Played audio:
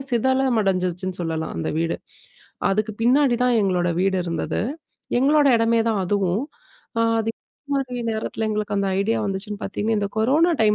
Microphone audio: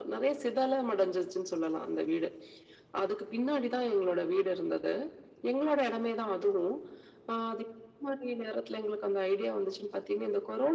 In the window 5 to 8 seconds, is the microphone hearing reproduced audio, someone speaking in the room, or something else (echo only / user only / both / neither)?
echo only